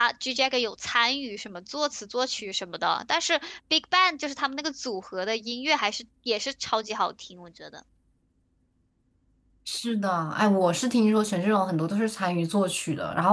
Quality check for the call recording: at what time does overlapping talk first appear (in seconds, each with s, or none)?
none